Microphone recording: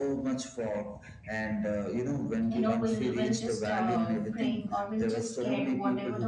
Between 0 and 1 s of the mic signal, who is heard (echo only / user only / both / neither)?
echo only